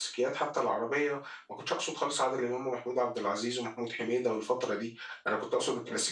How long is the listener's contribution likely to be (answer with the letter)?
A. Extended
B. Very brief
B